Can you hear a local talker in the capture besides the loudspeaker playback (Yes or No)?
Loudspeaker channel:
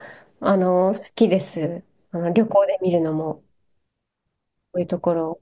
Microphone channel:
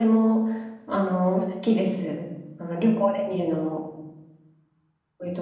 No